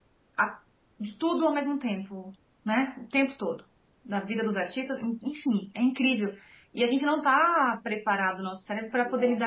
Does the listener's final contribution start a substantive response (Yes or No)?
No